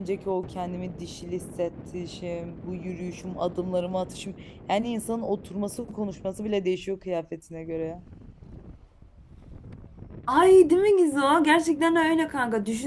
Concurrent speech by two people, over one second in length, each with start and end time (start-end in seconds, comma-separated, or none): none